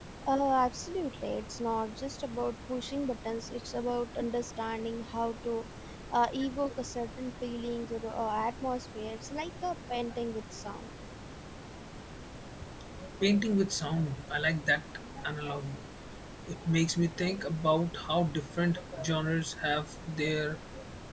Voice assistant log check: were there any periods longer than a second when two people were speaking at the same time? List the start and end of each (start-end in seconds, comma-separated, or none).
none